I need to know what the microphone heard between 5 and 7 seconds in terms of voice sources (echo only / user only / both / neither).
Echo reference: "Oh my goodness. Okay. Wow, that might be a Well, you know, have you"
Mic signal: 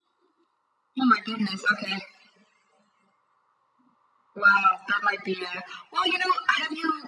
echo only